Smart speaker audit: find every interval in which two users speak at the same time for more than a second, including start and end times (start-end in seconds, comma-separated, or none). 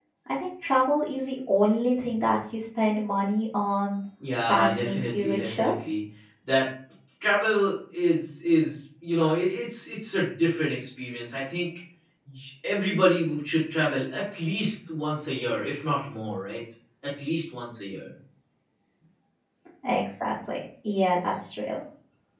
4.5-5.7